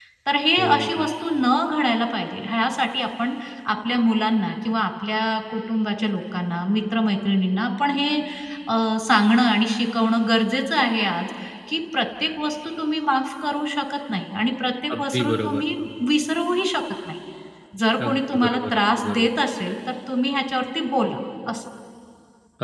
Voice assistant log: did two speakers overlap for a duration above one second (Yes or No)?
Yes